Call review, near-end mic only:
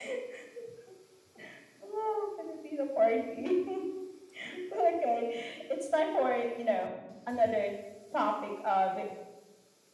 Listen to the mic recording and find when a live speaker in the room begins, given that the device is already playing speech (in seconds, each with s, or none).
none